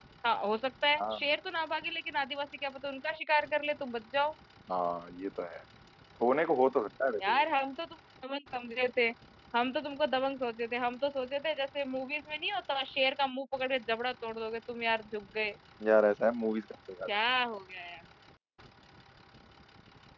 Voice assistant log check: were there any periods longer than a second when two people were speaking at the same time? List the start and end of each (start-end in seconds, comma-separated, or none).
none